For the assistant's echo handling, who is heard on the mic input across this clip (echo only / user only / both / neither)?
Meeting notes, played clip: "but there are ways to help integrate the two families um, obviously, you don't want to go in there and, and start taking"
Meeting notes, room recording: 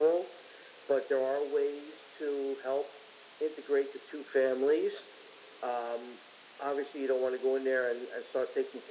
echo only